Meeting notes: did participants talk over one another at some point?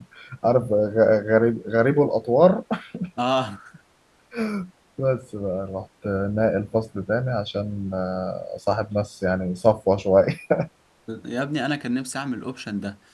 No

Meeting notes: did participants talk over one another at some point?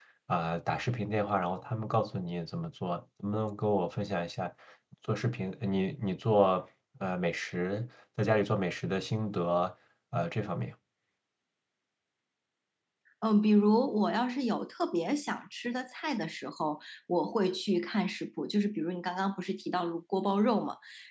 No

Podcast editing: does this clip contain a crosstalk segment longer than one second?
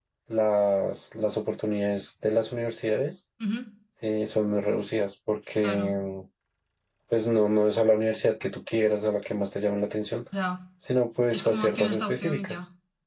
Yes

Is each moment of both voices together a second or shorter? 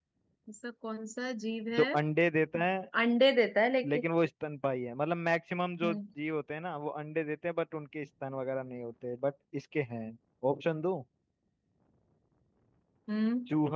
Yes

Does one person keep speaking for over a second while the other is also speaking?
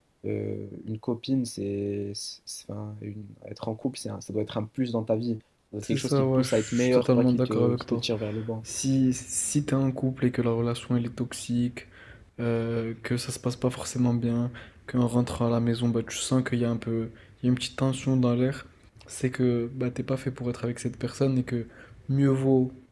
Yes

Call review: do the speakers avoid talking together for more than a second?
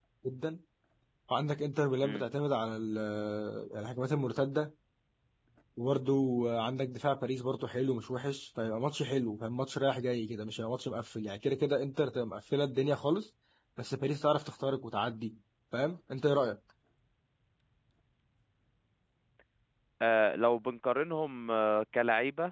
Yes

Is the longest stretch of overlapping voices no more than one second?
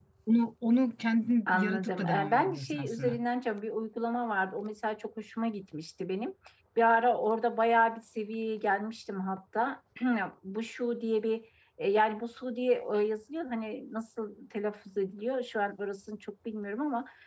No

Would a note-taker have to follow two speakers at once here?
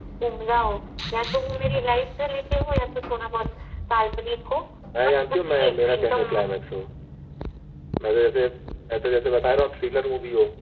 Yes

